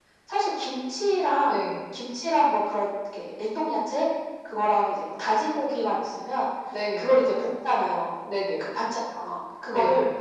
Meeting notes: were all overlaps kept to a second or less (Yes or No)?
Yes